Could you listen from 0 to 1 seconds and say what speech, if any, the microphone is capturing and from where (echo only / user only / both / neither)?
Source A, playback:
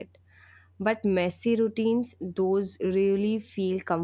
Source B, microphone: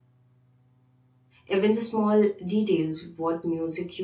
neither